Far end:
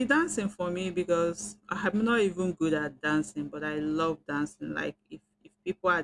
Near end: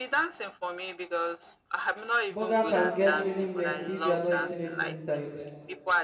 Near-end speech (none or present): present